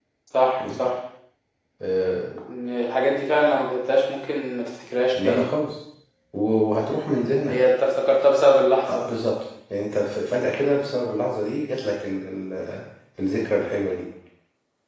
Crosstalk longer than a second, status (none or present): none